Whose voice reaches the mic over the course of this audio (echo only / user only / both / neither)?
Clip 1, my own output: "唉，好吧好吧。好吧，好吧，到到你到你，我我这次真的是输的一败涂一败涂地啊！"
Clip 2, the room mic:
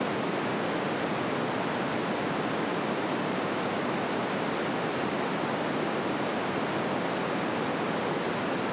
neither